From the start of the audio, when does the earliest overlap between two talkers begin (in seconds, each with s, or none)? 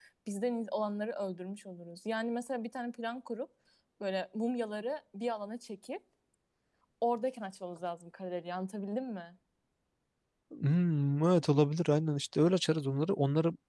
none